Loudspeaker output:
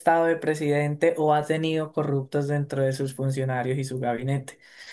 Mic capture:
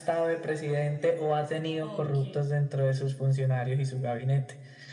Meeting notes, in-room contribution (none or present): present